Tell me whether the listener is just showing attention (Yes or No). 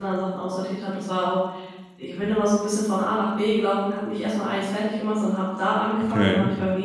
Yes